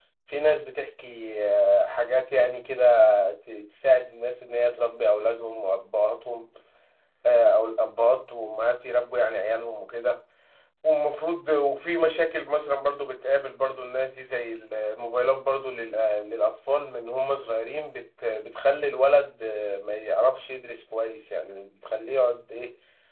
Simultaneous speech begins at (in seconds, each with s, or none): none